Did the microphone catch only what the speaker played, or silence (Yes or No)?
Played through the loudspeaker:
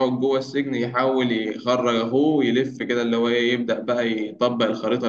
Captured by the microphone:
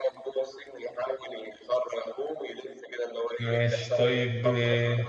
No